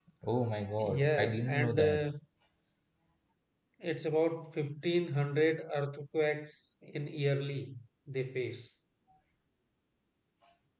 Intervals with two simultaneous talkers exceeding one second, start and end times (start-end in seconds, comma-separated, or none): 0.8-2.1